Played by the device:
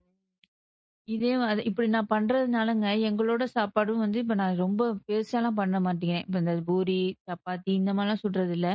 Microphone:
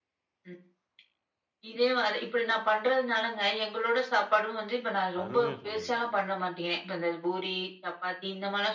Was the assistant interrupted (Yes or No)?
Yes